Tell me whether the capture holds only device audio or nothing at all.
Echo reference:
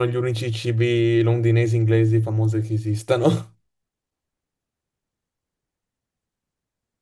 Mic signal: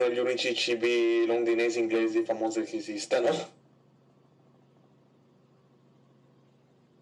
Yes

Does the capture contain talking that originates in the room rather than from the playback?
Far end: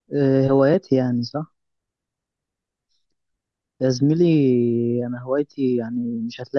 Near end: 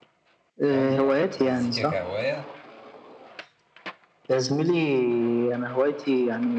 Yes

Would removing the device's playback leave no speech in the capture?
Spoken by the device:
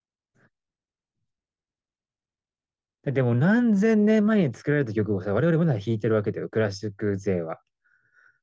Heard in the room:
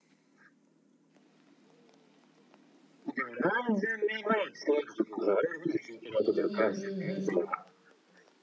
No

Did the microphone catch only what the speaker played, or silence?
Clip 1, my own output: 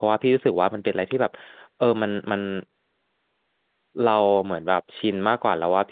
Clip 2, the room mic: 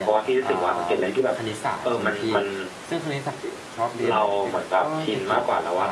No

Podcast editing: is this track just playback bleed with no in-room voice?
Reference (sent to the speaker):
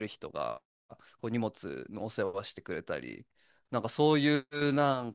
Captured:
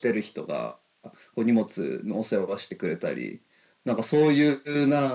Yes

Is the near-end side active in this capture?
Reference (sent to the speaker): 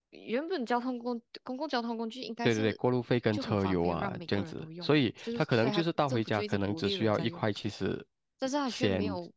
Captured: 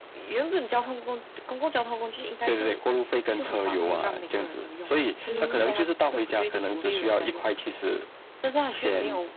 Yes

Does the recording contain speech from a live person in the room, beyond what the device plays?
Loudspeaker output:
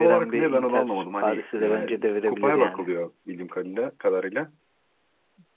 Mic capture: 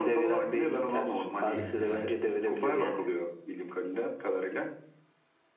Yes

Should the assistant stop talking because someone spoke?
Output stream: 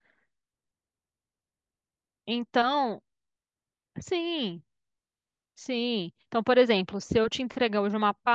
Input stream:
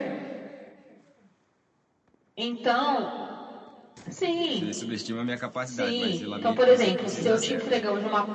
Yes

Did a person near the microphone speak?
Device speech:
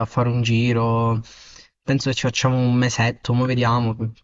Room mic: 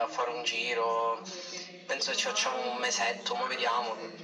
Yes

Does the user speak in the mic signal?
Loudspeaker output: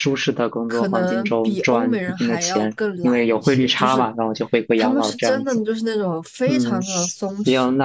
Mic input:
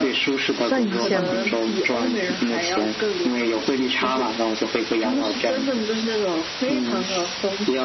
Yes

